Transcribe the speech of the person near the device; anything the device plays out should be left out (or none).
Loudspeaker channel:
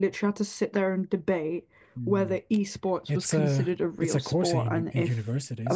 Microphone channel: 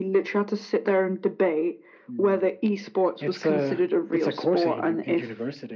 none